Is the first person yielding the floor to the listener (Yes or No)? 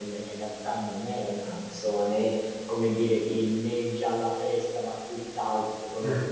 No